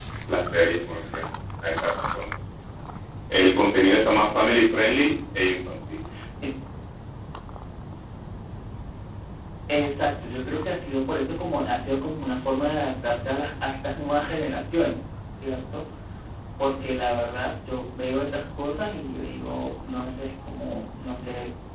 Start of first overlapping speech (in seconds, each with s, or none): none